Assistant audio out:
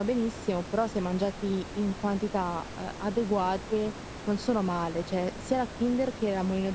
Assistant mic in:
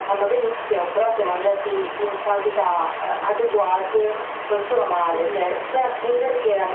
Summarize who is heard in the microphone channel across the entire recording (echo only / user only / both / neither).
both